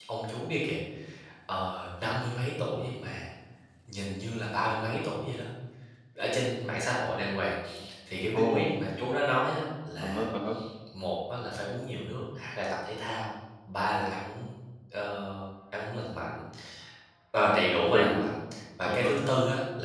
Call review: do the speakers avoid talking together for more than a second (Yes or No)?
Yes